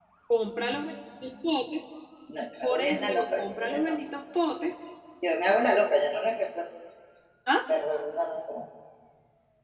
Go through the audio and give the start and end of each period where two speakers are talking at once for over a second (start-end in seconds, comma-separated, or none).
2.6-4.0